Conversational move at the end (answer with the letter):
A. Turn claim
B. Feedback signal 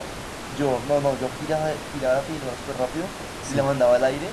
B